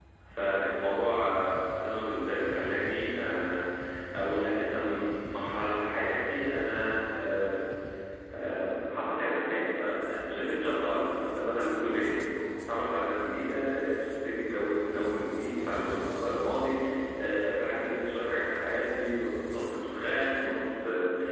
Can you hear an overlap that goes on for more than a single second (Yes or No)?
No